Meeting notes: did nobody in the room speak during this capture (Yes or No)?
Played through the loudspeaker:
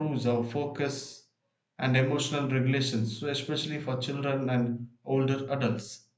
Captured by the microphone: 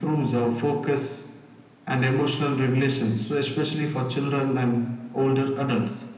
Yes